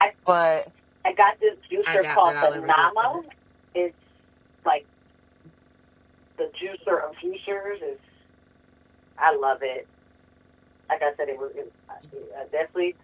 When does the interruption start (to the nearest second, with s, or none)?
2 s